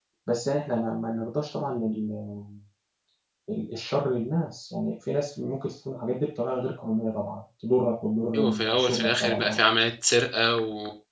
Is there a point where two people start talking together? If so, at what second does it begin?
8 s

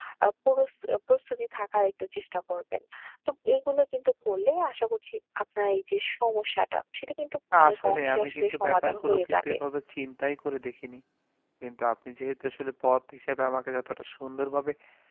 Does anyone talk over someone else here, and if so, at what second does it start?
8 s

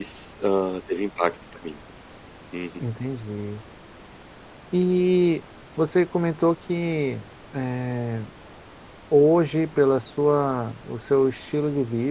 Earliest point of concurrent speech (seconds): none

